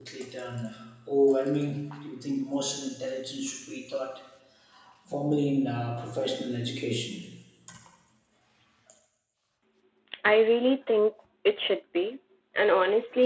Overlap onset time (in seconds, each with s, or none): none